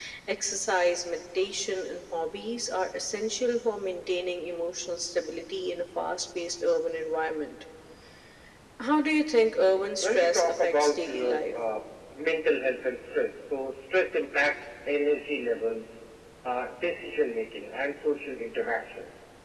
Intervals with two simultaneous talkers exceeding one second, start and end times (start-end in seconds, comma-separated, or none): 10.0-11.5